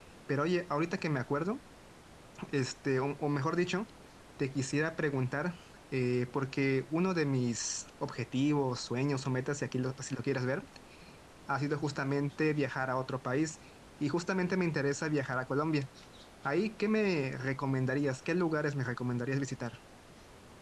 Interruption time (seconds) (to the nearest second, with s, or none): none